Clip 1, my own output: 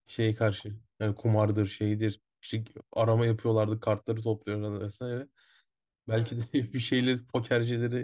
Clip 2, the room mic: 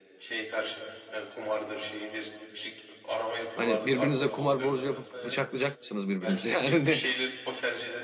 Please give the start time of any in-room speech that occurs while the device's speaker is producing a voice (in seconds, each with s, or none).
3.6 s